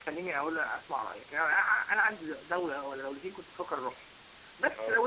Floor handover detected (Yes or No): No